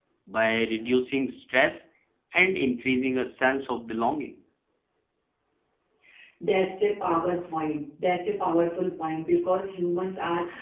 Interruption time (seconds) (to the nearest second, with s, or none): none